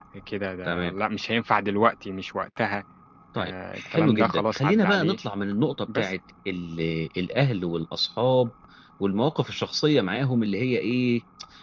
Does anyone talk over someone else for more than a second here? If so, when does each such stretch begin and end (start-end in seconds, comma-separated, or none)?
3.4-5.2